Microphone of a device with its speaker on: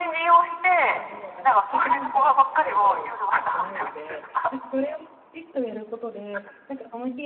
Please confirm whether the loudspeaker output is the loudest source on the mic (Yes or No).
Yes